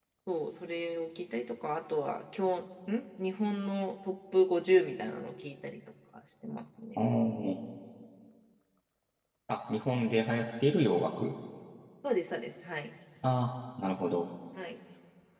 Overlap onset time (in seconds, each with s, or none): none